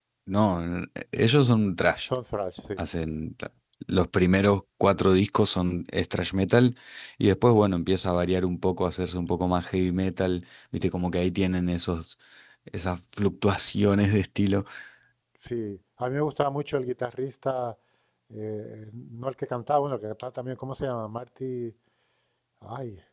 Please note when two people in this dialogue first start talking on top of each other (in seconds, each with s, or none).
none